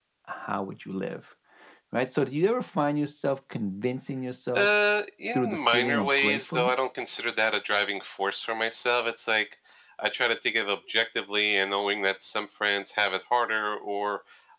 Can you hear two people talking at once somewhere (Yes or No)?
Yes